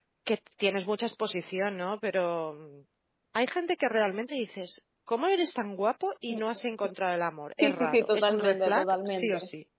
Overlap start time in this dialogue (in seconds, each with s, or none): 7.6 s